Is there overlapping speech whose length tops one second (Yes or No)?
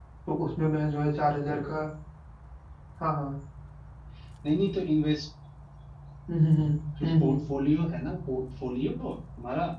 No